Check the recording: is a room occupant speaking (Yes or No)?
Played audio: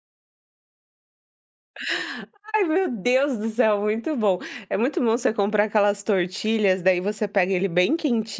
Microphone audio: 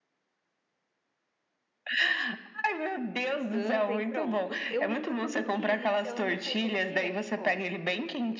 Yes